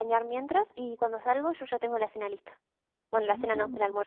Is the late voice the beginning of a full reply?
Yes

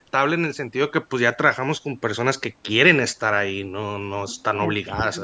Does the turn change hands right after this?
Yes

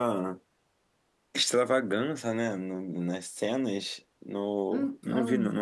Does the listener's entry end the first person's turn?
No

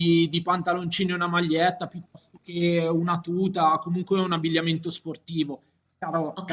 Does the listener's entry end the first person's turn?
Yes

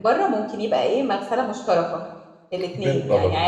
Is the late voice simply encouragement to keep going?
Yes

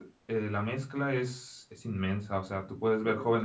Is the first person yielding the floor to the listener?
No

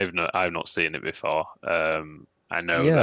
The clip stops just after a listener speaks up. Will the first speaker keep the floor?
No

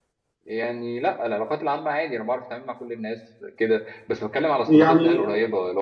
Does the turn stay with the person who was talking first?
Yes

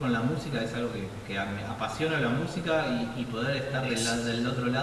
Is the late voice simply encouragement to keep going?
Yes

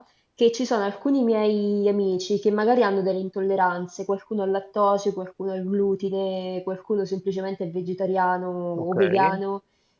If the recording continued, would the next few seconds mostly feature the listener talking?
No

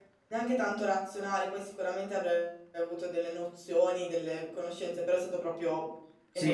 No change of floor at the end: No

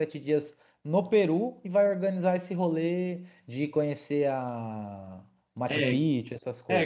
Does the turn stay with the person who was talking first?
No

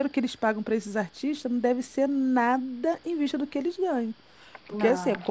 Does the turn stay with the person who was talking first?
Yes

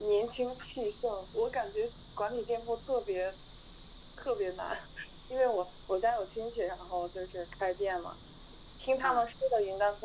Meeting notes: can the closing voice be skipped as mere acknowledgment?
Yes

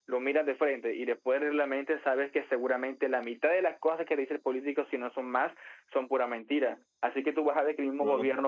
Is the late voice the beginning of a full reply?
No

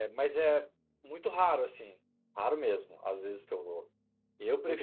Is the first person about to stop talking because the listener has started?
No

